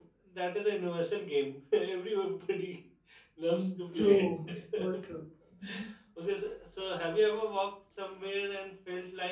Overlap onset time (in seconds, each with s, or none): 3.5 s